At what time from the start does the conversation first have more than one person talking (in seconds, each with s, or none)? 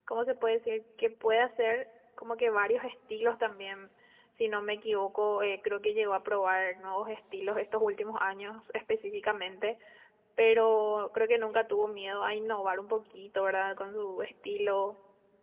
none